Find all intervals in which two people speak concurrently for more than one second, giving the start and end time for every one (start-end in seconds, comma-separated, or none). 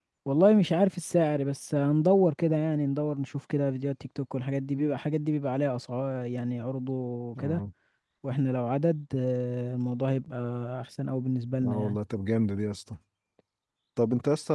none